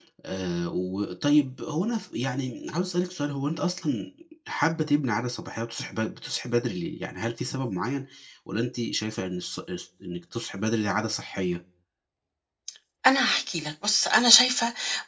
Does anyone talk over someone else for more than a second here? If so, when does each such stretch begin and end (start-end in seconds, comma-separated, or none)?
none